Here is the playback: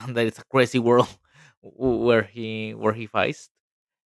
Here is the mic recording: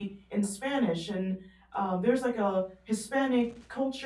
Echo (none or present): none